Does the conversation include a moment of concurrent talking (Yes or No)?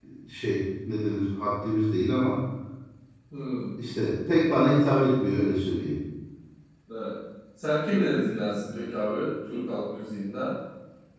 No